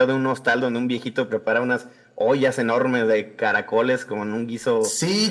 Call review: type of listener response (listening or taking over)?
taking over